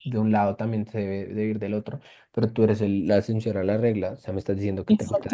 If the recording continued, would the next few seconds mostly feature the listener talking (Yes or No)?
Yes